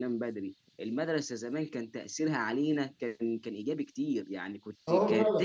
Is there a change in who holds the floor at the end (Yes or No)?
No